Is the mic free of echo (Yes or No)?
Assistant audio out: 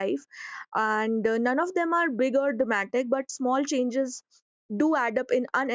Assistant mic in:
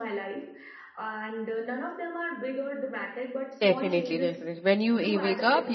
No